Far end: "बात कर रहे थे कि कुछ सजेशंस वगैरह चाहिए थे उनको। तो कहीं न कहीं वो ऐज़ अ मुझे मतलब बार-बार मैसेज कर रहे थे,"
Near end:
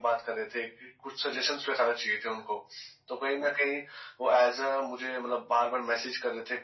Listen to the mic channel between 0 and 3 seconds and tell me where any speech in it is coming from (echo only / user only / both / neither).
echo only